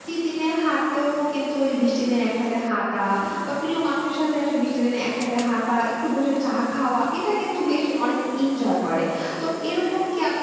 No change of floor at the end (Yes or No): Yes